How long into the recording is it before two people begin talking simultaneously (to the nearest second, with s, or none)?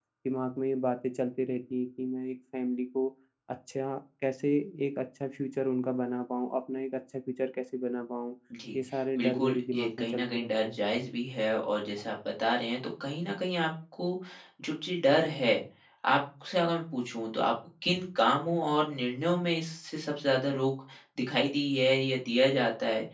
9 s